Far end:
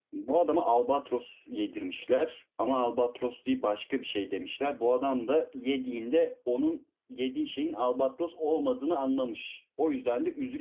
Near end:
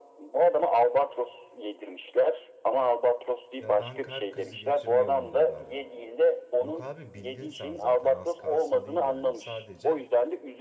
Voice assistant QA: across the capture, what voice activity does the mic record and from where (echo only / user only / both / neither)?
both